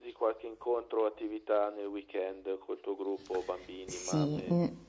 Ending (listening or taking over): taking over